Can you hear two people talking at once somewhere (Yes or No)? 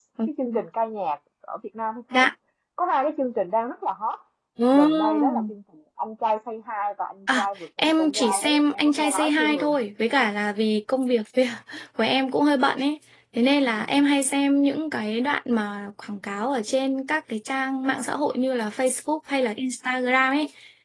Yes